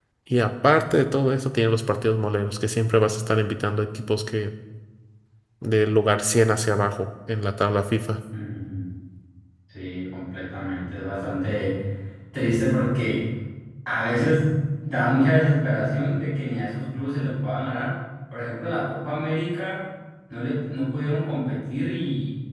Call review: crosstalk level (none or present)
none